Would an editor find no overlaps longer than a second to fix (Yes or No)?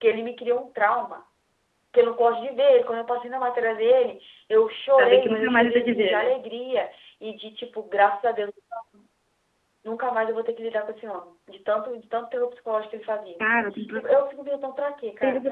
No